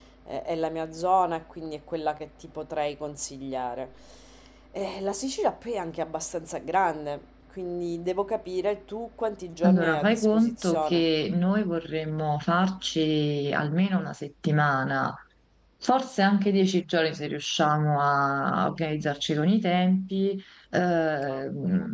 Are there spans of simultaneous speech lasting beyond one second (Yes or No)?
Yes